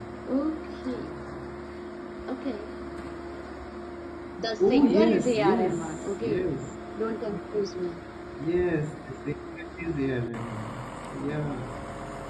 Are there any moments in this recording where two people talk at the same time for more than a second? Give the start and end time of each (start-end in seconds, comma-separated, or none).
4.6-6.5